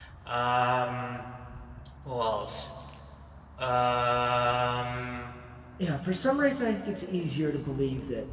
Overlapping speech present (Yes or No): No